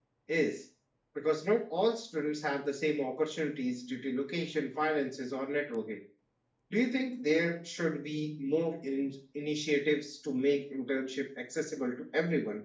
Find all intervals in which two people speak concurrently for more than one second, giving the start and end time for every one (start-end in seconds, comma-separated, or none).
none